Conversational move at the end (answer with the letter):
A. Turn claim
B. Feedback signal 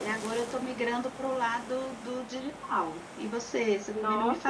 A